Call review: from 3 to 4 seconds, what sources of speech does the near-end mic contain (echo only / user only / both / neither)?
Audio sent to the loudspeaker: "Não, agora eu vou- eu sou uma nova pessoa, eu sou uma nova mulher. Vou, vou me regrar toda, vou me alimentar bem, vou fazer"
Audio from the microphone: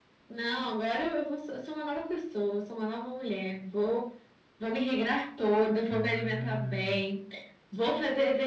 echo only